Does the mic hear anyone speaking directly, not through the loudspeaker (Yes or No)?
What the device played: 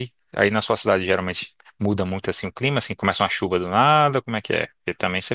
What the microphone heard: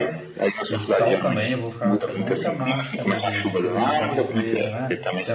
Yes